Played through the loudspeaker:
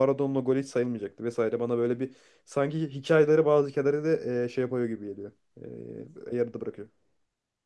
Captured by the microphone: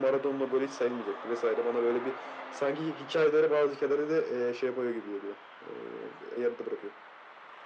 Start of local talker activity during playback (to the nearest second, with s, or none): none